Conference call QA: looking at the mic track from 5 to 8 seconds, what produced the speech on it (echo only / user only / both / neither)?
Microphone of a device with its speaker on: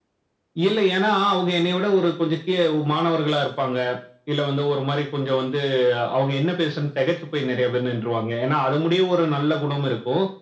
echo only